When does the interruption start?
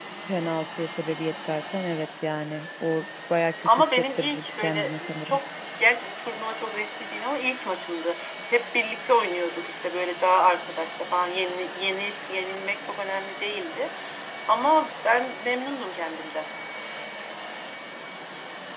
4 s

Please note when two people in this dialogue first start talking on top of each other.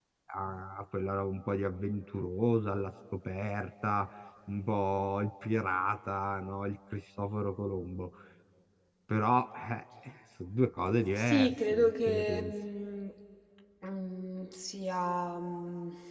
11 s

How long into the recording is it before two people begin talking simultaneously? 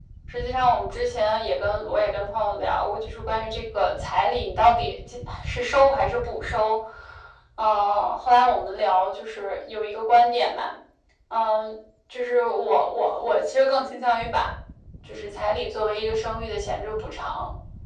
none

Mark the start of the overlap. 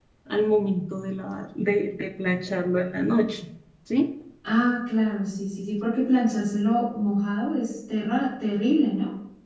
none

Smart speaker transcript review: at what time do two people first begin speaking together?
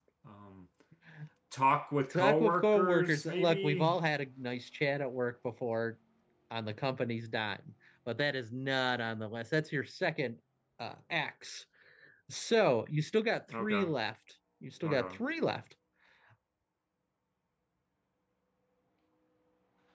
2 s

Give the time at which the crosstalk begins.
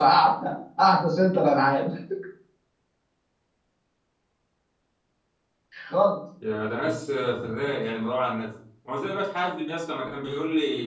none

